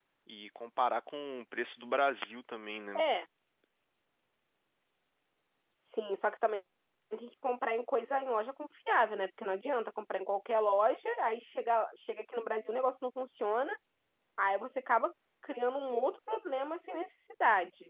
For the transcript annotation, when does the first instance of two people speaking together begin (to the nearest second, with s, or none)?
none